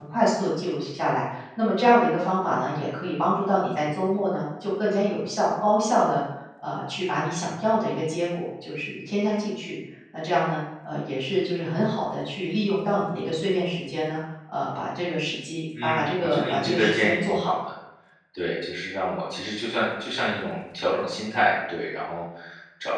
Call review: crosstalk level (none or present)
present